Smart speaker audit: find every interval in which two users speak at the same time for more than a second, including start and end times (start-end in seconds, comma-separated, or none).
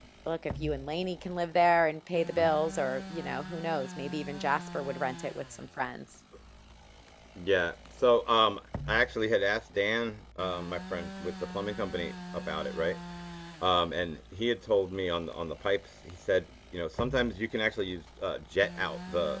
none